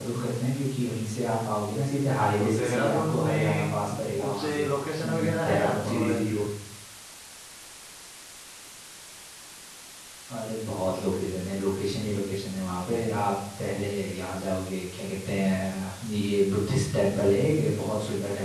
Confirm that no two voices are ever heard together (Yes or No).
No